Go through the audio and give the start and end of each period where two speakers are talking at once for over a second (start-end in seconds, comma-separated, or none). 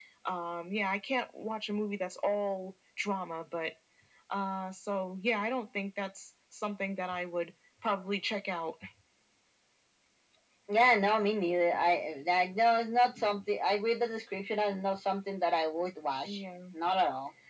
none